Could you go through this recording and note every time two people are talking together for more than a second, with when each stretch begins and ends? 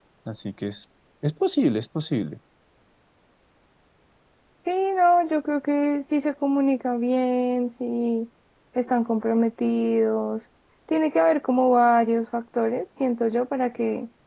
none

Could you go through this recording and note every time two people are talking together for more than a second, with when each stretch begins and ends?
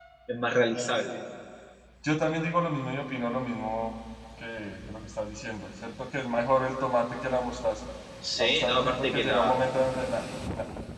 8.4-9.6

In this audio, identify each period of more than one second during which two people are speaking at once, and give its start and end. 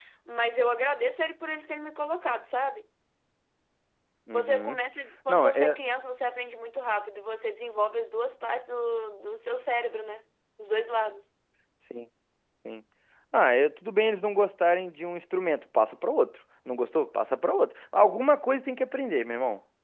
none

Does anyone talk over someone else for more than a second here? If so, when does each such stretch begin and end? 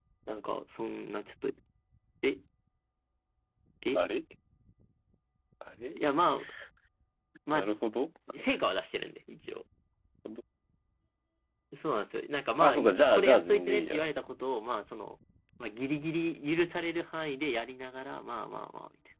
12.6-14.1

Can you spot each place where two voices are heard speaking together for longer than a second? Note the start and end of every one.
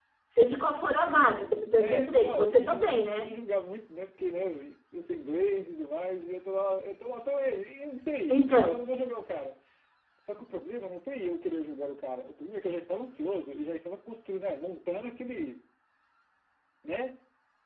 1.8-3.3

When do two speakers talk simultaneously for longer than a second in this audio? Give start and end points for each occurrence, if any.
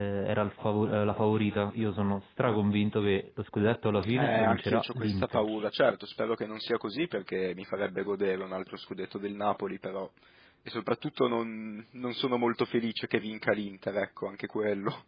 4.1-5.5

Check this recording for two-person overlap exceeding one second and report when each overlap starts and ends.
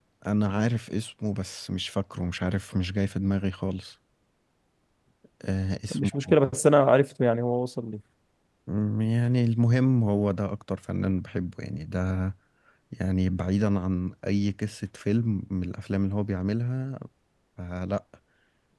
none

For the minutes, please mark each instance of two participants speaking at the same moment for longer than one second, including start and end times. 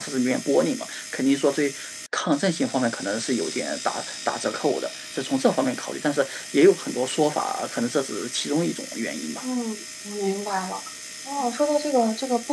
none

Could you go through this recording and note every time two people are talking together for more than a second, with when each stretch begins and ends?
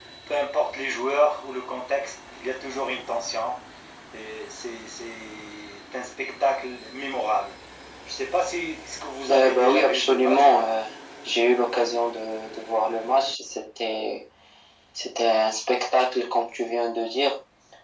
9.3-10.7

